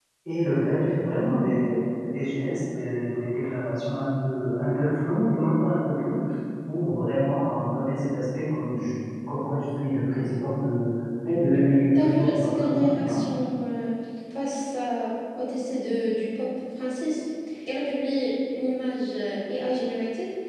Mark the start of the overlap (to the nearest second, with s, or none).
12 s